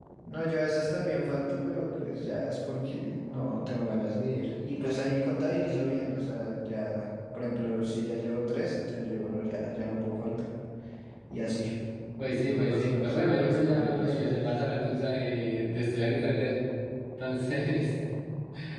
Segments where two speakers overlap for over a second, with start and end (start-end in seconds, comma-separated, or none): 12.3-14.4